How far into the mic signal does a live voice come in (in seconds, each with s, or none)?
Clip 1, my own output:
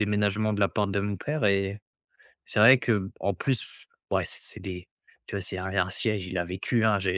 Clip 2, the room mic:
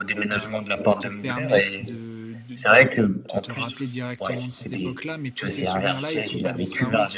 0.3 s